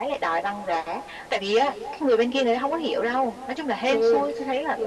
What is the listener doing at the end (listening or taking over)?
taking over